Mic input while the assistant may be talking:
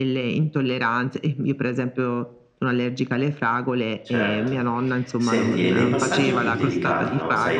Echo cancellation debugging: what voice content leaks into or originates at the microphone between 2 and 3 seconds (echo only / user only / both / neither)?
echo only